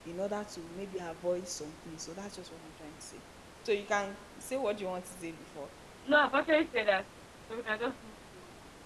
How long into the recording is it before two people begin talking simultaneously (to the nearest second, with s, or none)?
none